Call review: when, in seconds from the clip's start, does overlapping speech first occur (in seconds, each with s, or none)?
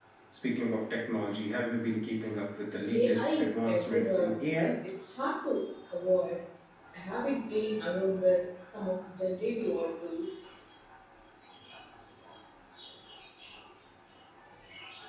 2.9 s